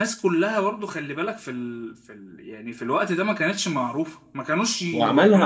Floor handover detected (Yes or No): Yes